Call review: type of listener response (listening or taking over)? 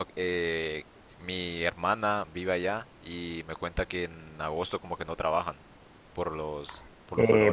taking over